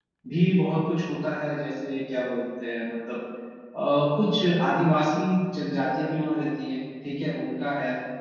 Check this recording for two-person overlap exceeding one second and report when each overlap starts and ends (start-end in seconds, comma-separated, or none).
none